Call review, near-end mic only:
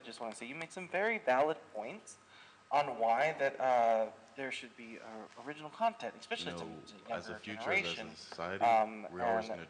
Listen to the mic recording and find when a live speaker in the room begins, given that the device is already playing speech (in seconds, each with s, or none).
6.4 s